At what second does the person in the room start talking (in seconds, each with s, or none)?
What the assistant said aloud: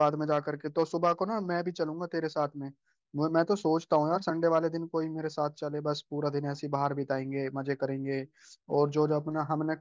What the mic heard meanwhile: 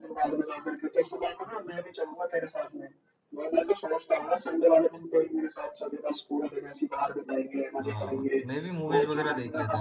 7.8 s